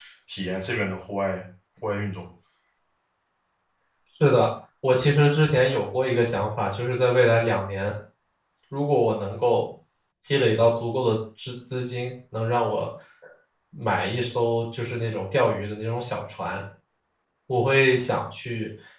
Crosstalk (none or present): none